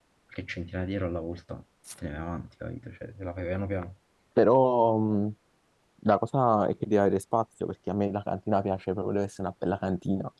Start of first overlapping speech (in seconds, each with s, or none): none